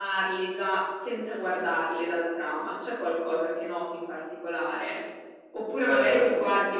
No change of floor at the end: Yes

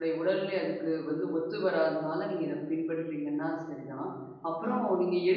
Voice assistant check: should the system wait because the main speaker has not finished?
Yes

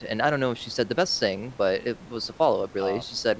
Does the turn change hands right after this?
No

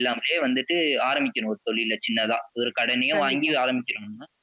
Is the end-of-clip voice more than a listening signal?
No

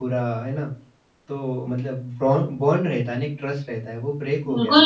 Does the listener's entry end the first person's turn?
Yes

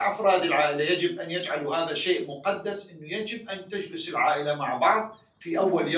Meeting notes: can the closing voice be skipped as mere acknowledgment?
Yes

